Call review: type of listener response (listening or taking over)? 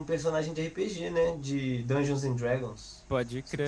taking over